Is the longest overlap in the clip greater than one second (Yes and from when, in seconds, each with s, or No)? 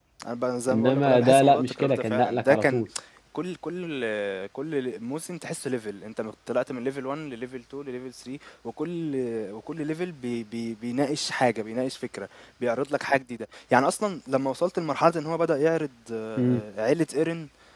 Yes, from 0.7 s